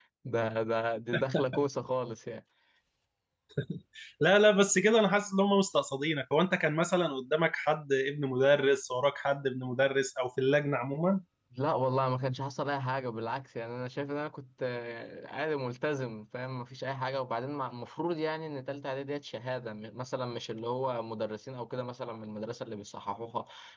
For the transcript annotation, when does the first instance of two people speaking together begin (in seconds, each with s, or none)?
none